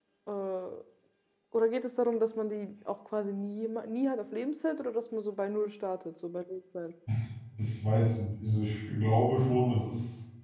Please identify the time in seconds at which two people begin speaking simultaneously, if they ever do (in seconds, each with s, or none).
none